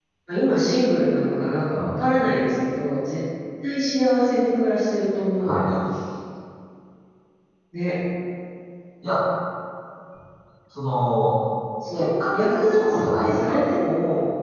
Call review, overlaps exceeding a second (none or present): present